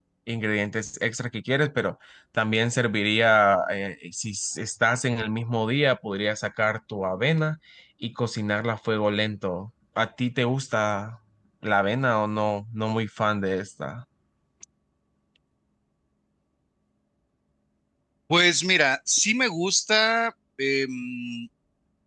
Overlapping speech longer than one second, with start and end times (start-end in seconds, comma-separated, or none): none